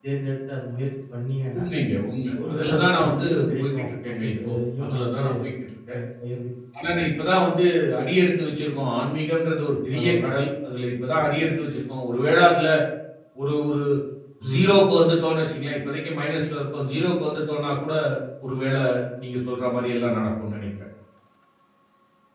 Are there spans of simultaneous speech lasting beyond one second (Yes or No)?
Yes